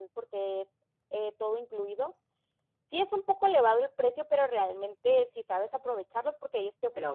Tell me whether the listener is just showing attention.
Yes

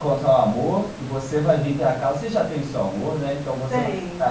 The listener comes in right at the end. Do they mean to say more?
No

